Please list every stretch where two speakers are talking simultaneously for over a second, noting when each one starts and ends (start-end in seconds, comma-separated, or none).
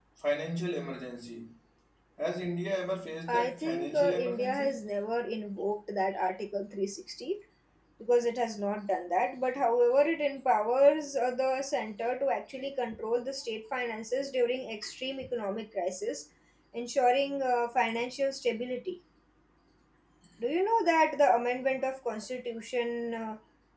3.3-4.7